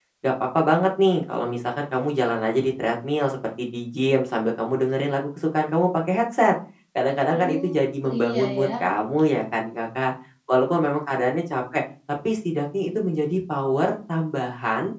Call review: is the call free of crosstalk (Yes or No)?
No